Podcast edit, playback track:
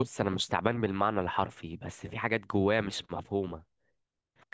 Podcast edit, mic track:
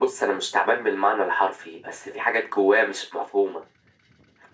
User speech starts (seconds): none

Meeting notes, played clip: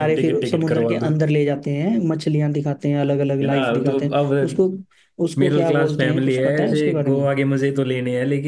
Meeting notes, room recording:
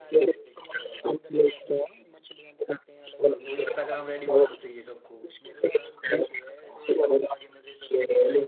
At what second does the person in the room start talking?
3.2 s

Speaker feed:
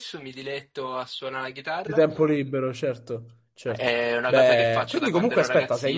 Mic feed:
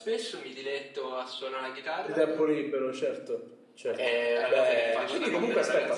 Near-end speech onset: 4.3 s

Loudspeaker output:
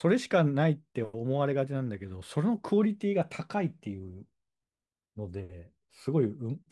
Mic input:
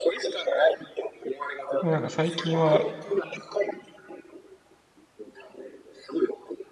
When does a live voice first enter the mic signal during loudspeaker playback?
1.8 s

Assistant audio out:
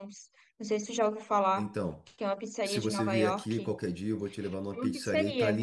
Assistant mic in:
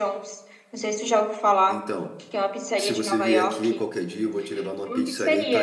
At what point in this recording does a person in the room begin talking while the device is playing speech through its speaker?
none

